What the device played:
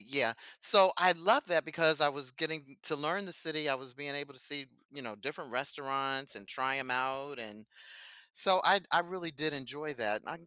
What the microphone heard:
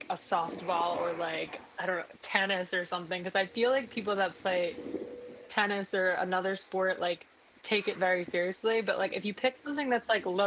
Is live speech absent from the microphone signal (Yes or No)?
No